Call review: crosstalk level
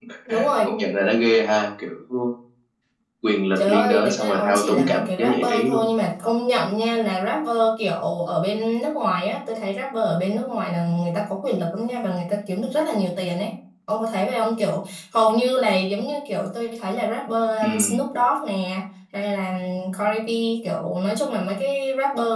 present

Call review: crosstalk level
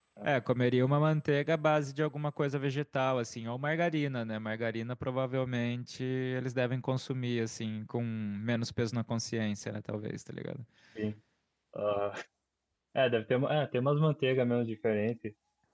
none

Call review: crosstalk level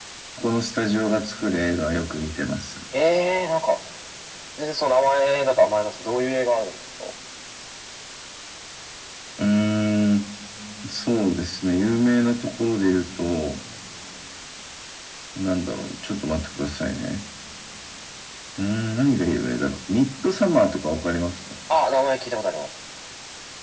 none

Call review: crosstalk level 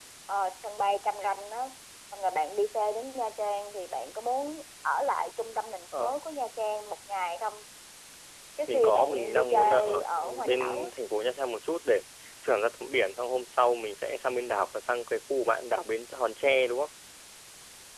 present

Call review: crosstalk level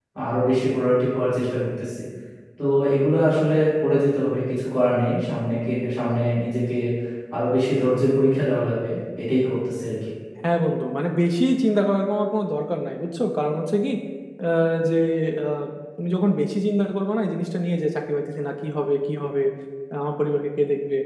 none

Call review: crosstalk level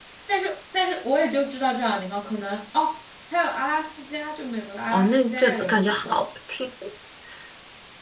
present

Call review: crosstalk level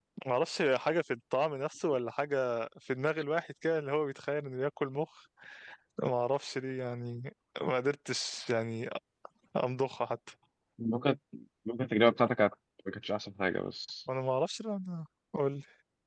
none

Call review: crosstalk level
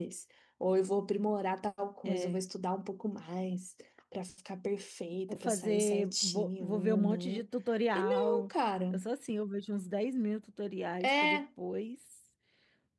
present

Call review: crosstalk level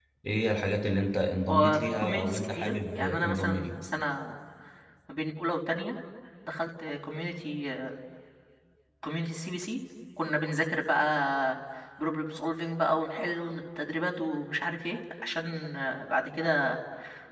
present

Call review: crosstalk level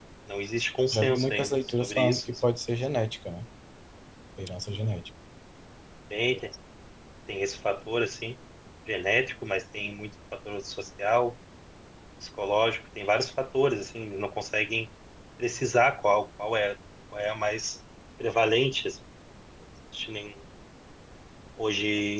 present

